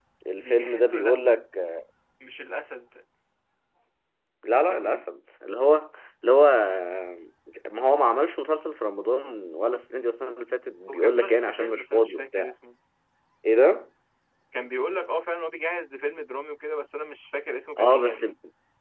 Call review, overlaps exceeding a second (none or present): present